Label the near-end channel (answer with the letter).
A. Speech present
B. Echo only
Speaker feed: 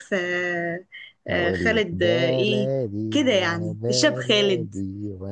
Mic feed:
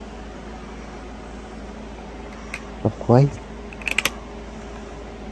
A